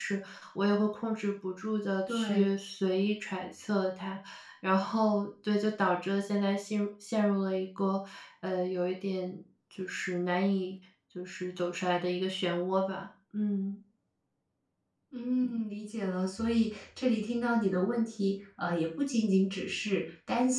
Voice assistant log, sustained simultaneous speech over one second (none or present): none